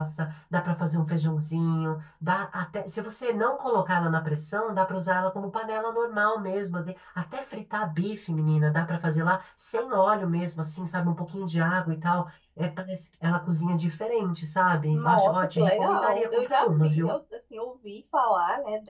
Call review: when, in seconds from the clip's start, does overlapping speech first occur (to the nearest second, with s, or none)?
15 s